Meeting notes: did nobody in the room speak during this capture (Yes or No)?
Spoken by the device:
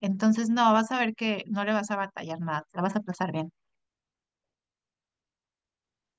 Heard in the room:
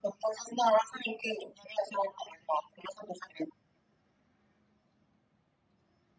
Yes